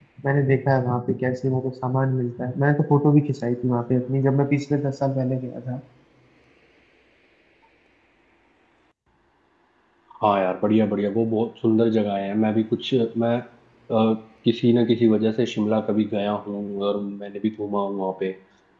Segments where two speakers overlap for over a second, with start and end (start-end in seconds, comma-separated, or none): none